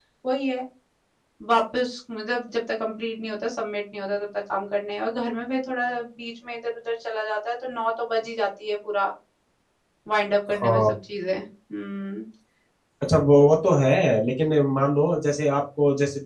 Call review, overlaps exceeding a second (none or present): none